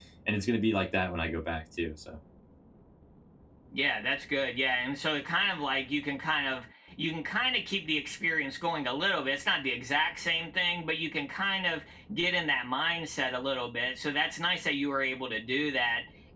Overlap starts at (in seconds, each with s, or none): none